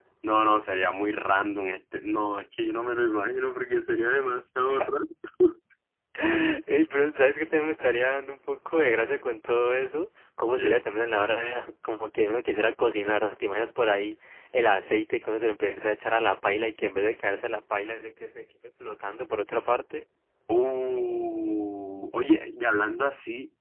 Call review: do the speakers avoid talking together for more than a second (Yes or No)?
Yes